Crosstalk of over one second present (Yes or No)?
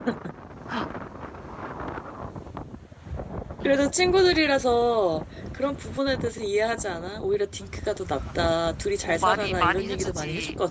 Yes